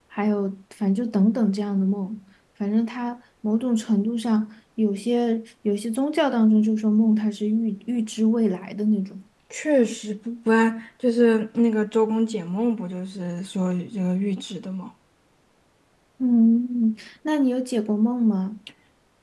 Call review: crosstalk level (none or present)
none